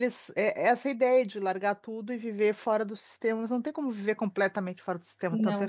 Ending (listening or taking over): listening